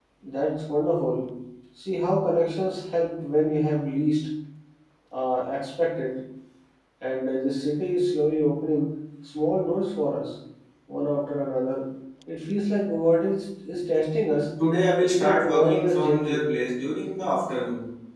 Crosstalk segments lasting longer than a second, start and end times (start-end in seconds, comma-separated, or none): 15.0-16.5